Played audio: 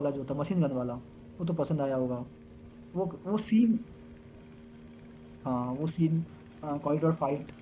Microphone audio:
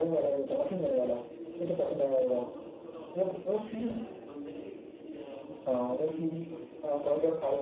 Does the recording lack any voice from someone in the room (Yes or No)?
No